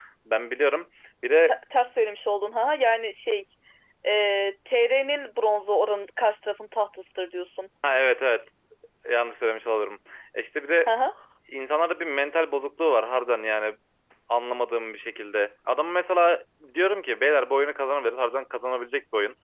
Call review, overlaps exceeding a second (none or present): none